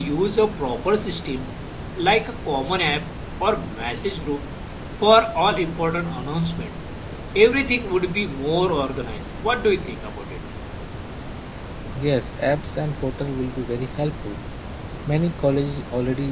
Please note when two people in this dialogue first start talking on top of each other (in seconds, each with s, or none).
none